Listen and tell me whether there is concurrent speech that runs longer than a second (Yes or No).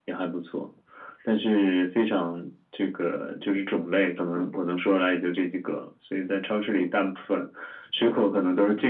No